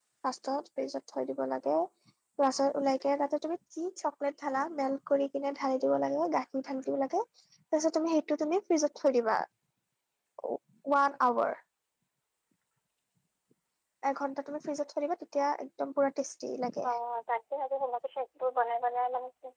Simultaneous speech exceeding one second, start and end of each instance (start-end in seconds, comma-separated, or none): none